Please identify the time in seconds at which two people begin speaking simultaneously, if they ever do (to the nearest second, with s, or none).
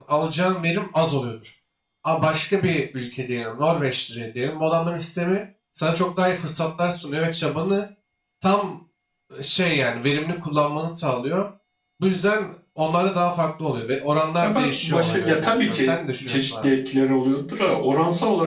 14 s